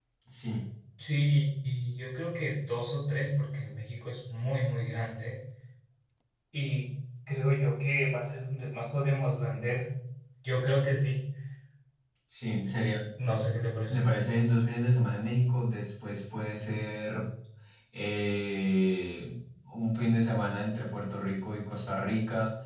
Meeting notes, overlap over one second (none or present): none